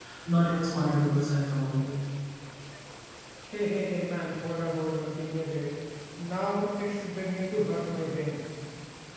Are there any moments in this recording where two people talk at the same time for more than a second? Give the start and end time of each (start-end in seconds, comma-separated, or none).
none